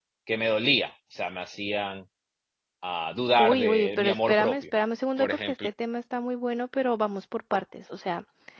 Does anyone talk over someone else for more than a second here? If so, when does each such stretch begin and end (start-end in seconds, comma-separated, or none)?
3.4-4.6